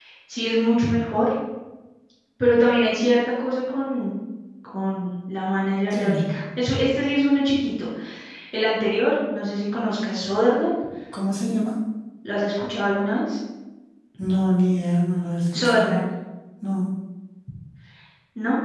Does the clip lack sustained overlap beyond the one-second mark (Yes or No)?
Yes